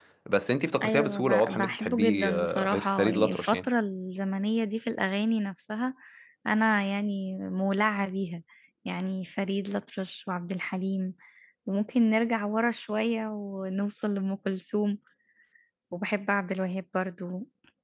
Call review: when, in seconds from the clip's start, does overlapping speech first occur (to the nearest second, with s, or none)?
1 s